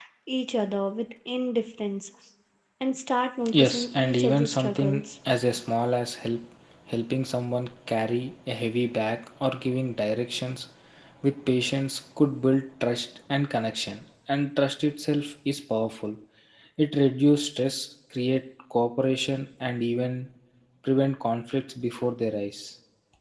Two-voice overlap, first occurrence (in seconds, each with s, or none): 3.5 s